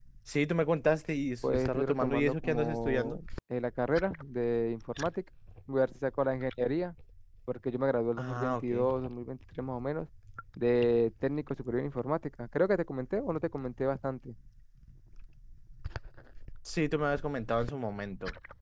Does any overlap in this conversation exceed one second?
Yes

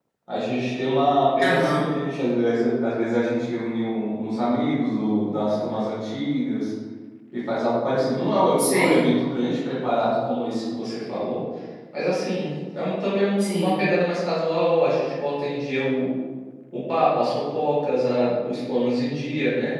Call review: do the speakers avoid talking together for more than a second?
Yes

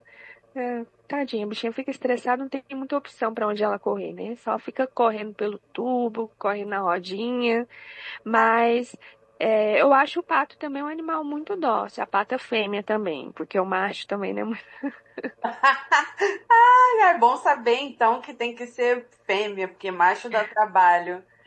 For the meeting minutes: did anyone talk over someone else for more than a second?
No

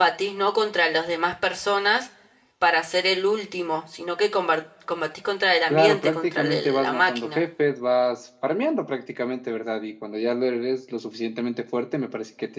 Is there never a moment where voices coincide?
No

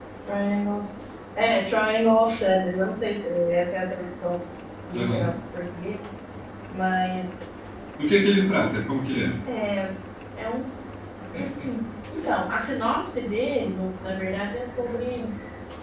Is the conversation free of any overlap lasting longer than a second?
Yes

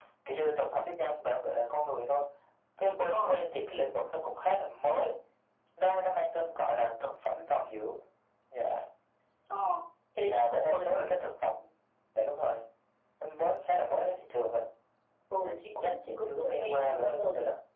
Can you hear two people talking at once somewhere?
Yes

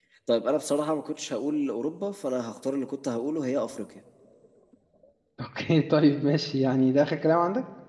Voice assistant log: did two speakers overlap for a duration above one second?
No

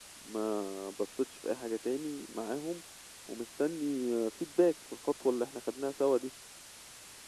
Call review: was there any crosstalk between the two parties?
No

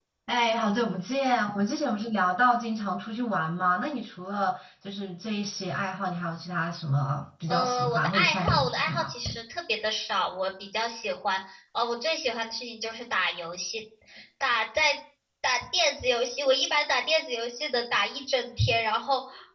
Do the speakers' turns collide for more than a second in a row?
Yes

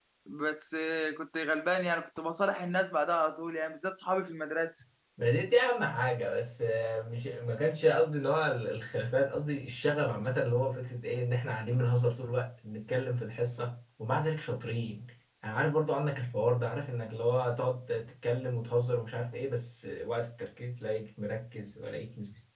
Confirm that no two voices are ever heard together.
Yes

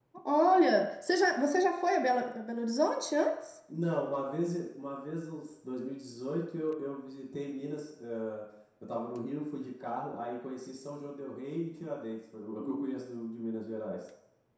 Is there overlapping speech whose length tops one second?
No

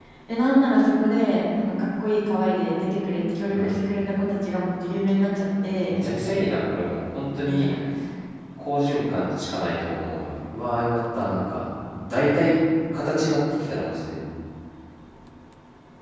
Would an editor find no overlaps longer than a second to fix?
Yes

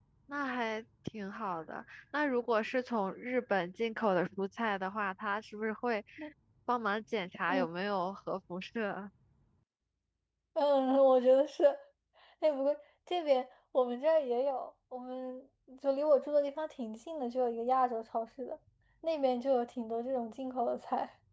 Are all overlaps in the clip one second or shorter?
Yes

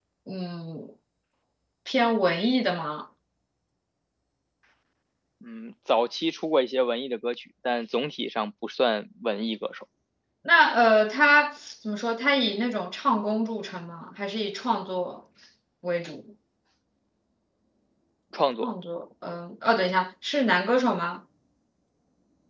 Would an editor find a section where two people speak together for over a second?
No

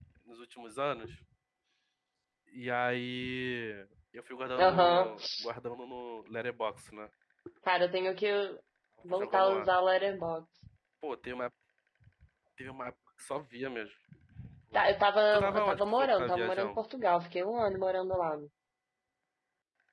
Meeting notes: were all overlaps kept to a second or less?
No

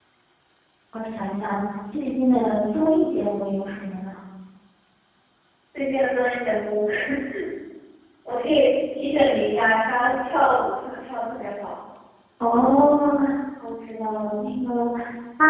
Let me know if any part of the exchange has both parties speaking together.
No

